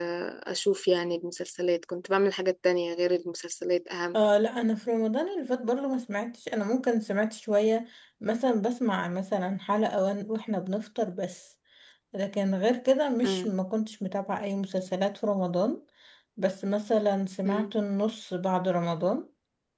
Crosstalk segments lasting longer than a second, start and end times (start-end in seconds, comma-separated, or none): none